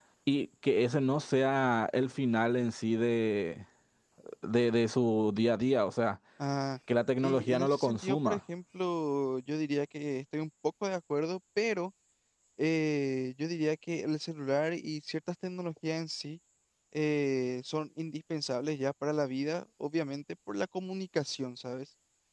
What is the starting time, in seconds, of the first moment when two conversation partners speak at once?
7 s

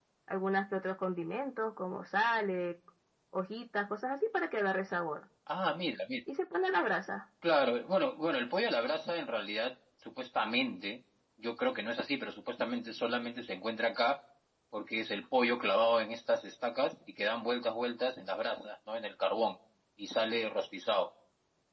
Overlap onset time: none

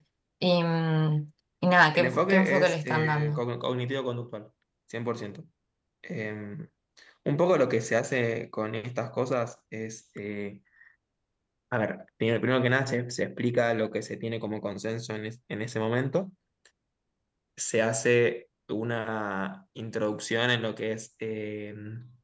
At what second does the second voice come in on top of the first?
2 s

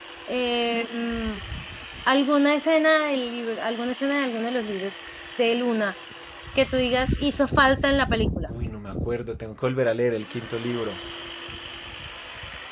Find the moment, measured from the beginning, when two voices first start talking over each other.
none

